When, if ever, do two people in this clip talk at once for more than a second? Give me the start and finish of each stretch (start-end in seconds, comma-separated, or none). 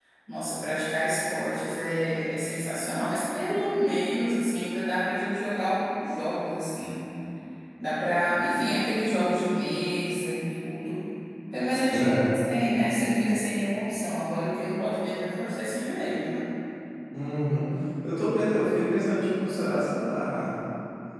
none